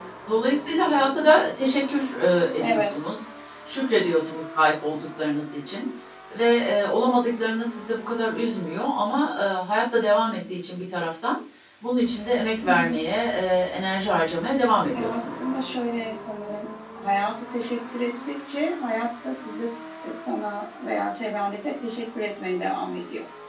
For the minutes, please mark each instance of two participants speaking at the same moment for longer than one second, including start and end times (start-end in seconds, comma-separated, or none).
none